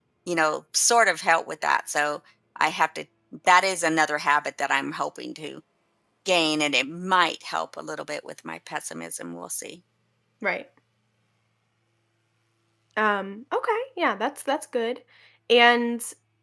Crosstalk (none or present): none